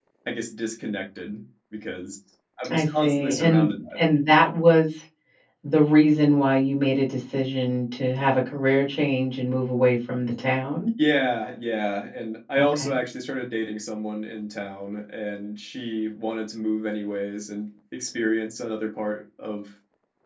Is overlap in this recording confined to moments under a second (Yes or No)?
No